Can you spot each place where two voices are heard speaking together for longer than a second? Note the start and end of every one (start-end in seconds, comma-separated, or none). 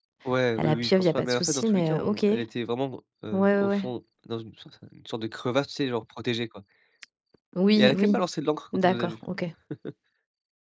0.6-2.4